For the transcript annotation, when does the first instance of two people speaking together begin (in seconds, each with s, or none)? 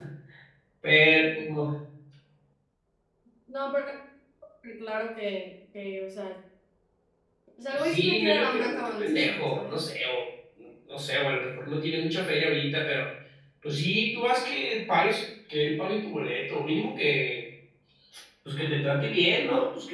7.7 s